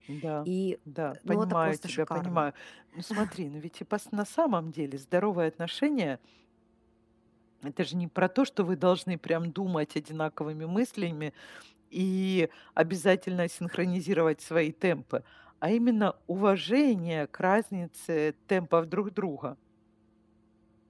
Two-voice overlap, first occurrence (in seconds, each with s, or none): 1.3 s